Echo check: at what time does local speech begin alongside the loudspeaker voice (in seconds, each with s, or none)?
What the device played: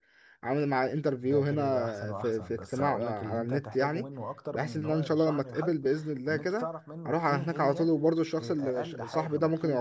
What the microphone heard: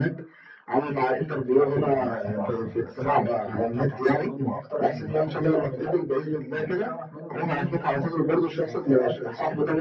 none